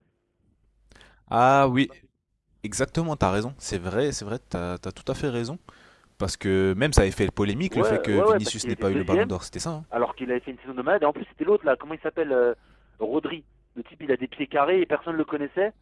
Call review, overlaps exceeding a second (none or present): present